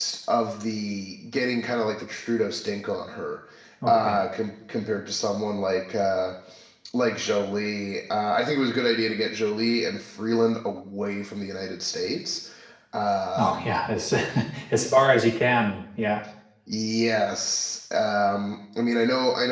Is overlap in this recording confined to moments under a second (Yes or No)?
Yes